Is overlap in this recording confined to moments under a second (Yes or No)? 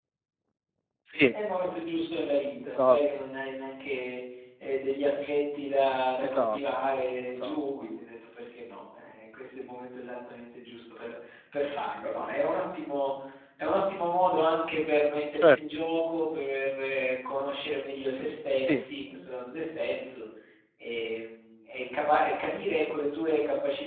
Yes